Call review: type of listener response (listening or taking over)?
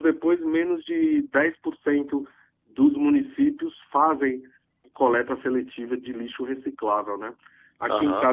listening